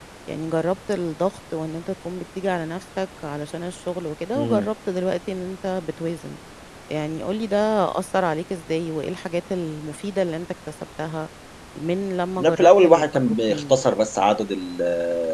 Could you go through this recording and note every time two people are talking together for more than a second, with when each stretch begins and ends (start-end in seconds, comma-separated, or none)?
12.4-13.8